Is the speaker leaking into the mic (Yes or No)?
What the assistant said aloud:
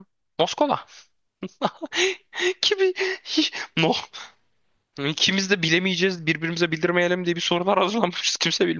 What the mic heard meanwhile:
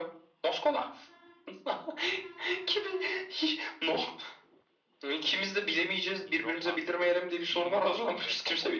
Yes